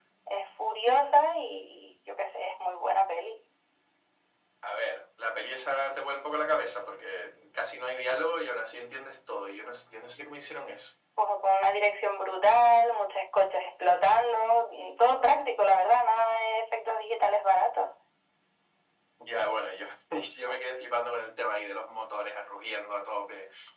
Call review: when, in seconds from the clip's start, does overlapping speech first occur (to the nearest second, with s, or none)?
none